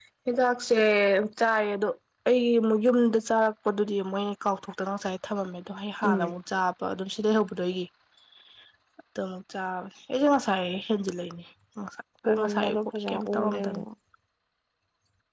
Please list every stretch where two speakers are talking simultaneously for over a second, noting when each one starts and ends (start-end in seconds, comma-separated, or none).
12.4-13.8